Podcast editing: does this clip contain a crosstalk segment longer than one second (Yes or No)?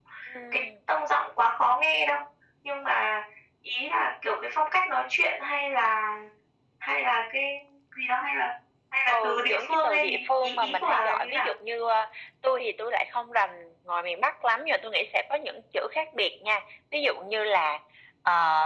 Yes